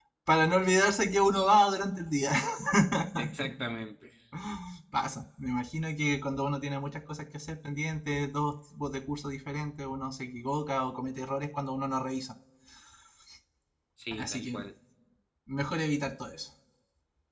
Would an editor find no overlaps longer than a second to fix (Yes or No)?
Yes